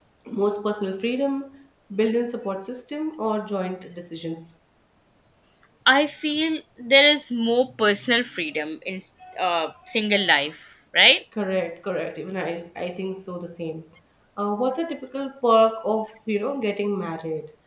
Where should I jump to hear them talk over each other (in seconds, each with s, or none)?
none